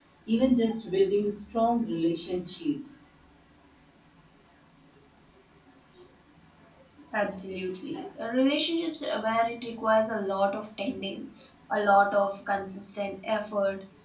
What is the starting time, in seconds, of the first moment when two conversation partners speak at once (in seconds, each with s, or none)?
none